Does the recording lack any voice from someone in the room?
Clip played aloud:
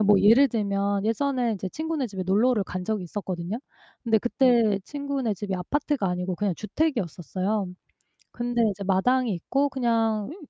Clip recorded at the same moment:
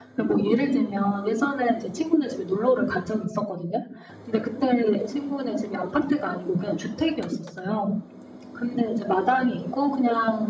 Yes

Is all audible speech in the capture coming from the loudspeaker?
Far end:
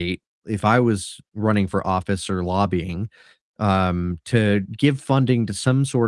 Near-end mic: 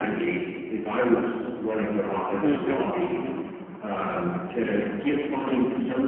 No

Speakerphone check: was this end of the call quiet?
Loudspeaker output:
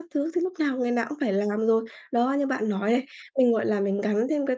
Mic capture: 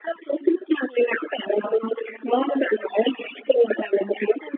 Yes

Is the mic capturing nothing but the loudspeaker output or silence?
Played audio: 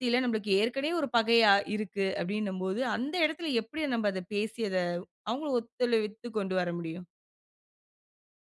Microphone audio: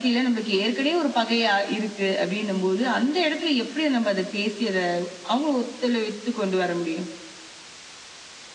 Yes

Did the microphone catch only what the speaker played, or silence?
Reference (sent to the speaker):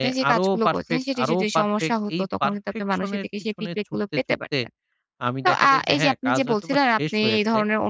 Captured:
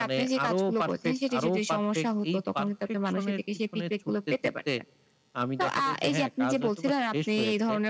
Yes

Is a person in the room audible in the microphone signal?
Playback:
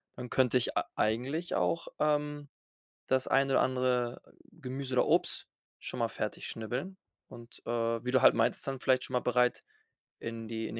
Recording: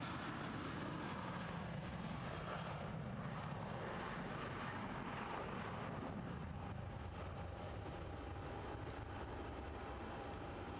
No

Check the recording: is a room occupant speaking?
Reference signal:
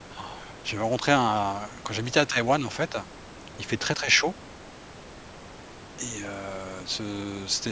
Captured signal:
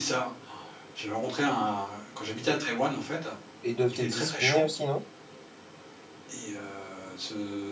Yes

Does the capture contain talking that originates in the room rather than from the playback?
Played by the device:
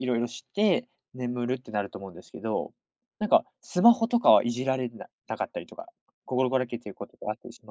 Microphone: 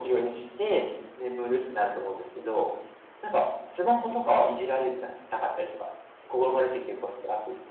No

